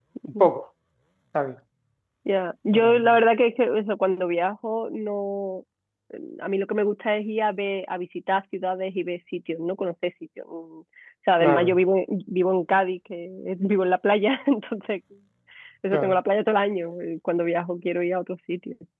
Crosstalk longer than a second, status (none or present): none